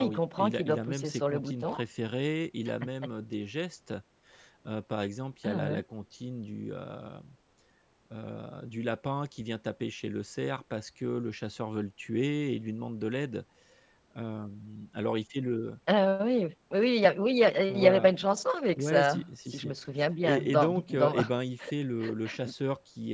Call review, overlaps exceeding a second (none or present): present